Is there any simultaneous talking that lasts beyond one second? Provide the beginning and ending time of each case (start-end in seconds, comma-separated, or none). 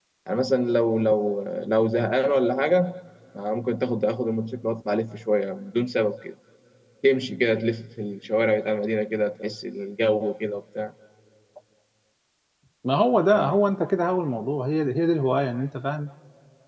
none